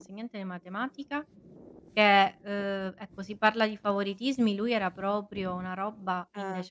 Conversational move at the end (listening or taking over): listening